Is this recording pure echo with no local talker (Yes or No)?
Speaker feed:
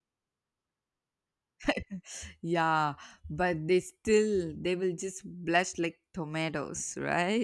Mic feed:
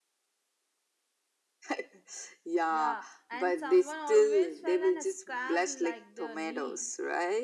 No